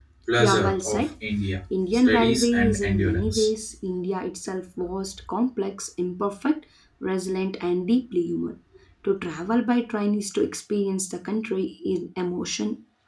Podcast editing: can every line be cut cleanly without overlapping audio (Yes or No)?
No